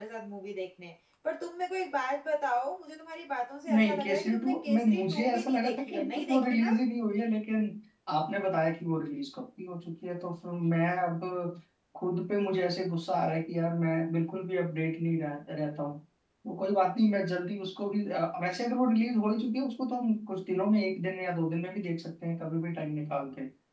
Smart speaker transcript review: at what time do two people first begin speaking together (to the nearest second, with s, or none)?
4 s